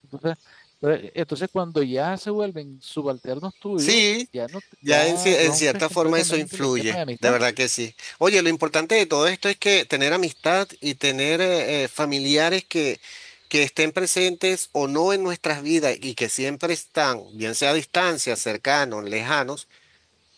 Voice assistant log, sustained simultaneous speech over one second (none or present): present